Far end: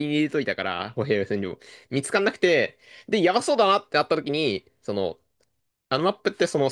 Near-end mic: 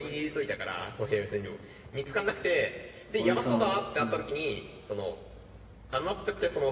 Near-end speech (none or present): present